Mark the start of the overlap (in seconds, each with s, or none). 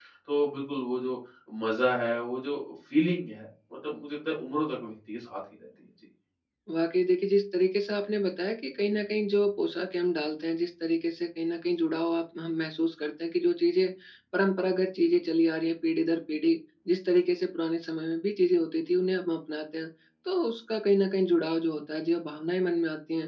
none